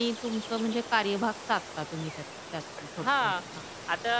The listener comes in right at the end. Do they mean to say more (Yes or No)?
Yes